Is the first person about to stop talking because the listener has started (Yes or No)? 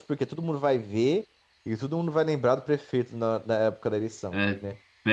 Yes